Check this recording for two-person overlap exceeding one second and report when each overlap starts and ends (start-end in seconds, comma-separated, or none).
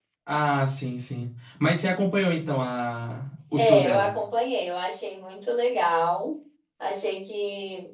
none